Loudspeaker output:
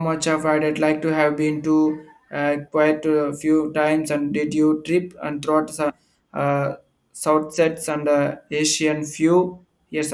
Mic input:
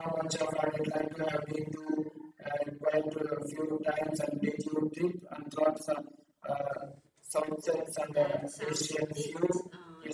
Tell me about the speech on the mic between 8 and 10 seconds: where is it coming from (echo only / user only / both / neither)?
both